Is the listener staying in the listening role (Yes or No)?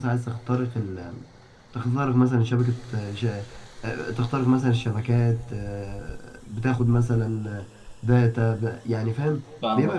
No